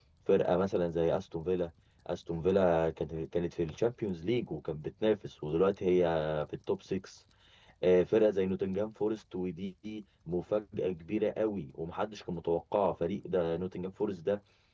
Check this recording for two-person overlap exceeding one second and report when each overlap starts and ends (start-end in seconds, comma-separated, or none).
none